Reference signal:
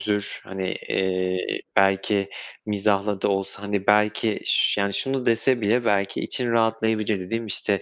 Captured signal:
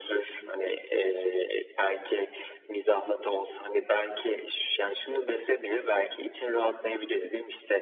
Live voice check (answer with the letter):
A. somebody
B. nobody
B